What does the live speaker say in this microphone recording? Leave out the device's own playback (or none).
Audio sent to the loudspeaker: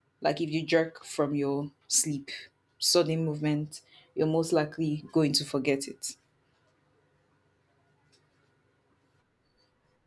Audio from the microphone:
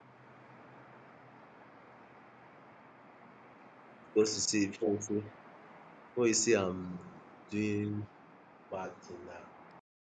because you see, before you say, before you say I'm doing bad thing na.